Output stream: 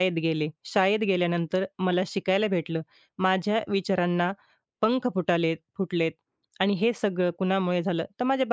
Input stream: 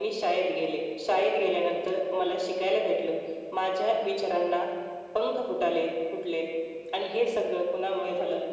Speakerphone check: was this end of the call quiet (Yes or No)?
Yes